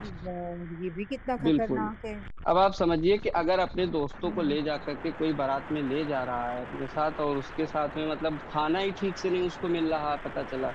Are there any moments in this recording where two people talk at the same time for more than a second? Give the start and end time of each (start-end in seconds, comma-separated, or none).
none